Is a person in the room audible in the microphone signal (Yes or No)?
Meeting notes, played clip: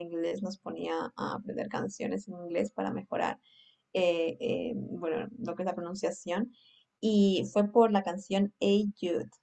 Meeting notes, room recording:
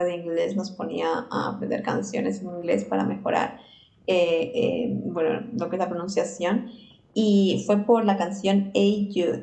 No